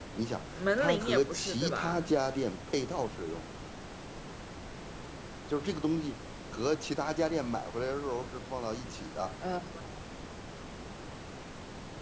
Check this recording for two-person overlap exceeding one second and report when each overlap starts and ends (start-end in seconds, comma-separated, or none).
0.8-2.1